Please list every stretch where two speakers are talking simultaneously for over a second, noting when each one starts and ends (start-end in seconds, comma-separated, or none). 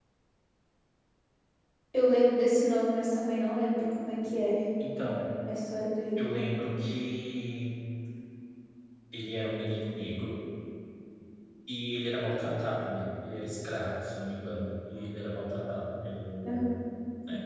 none